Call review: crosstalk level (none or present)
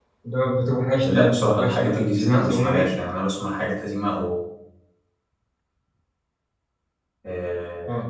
present